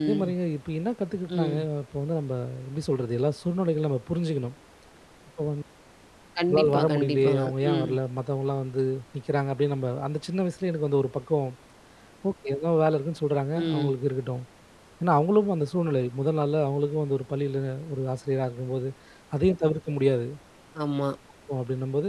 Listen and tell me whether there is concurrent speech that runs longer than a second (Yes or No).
Yes